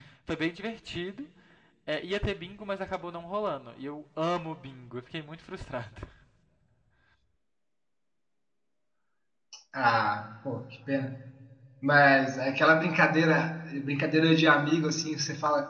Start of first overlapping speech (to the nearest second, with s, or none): none